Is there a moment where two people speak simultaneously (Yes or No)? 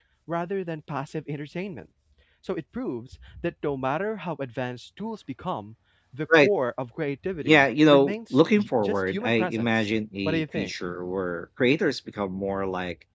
Yes